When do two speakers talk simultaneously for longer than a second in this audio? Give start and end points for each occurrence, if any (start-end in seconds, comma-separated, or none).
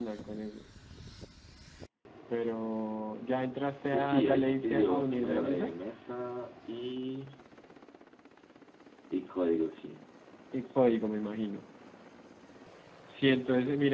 3.9-5.7